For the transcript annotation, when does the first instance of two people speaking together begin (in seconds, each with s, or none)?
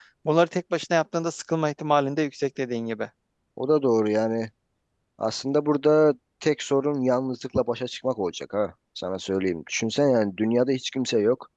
none